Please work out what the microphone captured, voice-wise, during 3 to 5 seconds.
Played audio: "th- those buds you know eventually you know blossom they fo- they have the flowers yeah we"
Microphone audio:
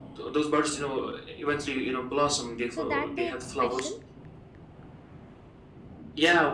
both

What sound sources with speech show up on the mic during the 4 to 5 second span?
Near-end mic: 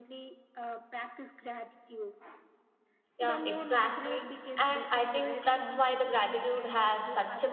both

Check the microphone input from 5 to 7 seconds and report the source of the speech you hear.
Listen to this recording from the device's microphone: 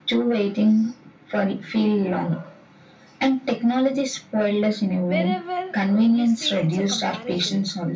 both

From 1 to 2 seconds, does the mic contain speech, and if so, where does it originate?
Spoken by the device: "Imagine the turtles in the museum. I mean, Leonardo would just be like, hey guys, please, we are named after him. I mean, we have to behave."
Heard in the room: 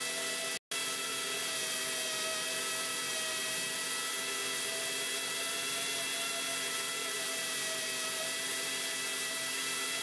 neither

